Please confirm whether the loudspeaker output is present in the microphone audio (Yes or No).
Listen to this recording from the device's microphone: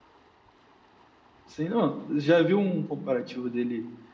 No